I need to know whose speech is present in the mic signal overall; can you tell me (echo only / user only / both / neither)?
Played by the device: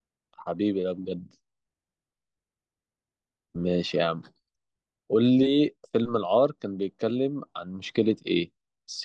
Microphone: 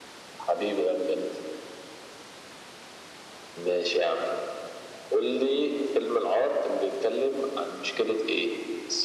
echo only